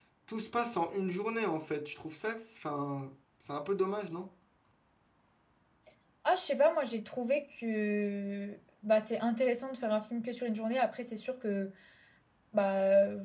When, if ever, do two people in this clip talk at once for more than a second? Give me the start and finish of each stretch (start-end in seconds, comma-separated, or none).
none